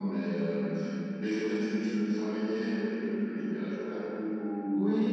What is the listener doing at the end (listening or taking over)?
taking over